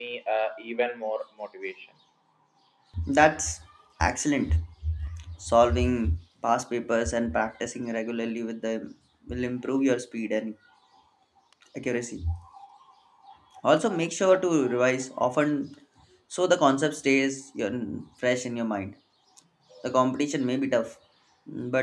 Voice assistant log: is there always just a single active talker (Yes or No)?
Yes